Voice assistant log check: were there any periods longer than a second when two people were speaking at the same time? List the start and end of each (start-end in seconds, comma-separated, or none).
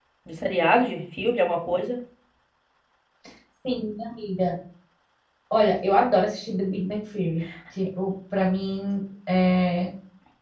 none